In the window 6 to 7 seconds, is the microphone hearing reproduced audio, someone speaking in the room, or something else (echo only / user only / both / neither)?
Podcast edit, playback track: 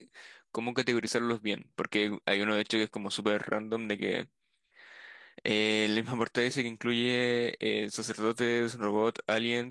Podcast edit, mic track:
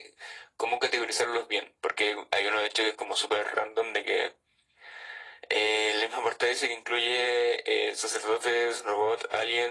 echo only